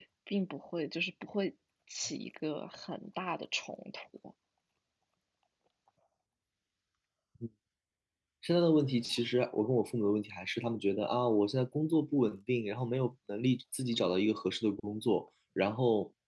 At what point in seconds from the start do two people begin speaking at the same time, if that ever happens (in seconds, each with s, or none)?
none